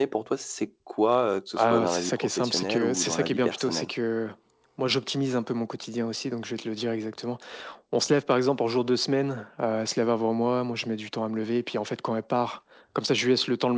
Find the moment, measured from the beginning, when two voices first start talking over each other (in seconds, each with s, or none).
1.6 s